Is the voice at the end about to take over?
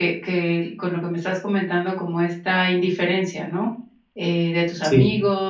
No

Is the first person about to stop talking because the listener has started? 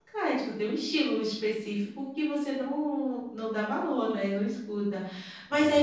No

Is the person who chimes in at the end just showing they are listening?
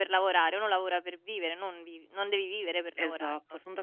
No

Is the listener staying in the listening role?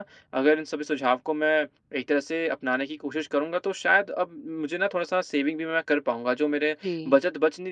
Yes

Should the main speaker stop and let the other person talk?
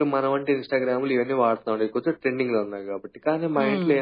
No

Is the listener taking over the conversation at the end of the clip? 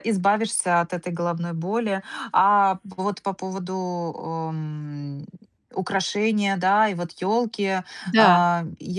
No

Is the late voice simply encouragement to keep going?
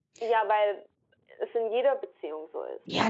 No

